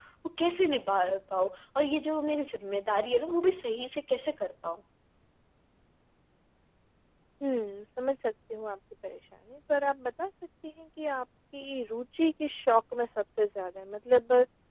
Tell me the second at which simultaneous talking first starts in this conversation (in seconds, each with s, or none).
none